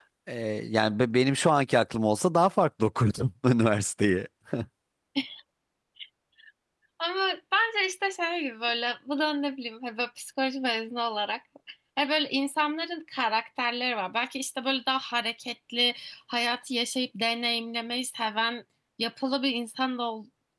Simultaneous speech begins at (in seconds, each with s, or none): none